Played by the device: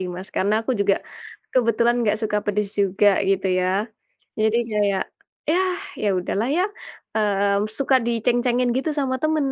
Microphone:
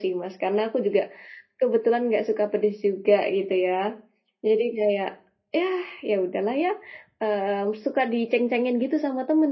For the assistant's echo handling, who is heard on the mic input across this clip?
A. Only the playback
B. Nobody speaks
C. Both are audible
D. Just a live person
A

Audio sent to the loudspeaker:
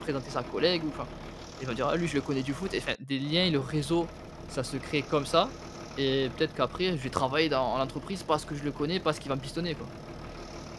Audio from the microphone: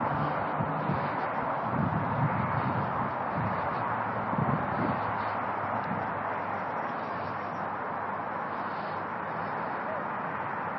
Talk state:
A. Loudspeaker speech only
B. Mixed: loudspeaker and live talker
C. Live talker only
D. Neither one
D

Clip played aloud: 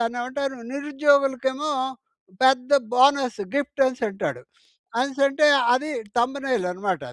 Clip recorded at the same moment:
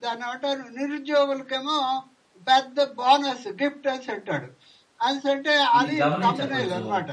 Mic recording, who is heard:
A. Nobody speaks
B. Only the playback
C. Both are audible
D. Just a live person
C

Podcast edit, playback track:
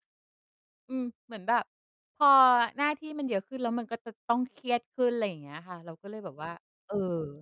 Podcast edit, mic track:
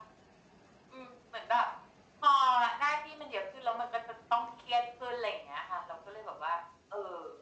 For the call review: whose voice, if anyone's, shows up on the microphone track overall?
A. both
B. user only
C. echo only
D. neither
C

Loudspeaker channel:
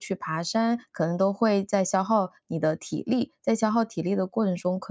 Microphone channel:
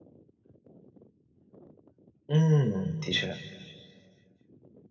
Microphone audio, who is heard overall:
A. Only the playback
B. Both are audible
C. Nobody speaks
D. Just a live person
D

